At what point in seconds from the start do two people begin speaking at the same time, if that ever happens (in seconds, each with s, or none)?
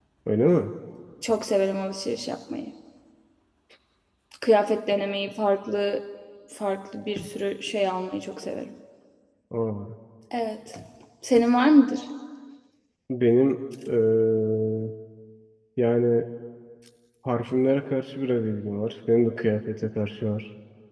none